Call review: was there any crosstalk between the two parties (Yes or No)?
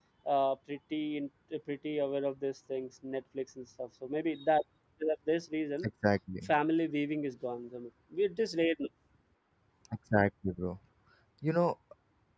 No